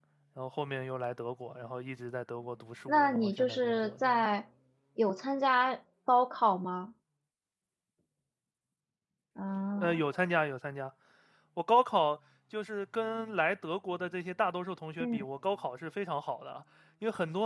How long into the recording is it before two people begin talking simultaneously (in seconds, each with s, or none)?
2.9 s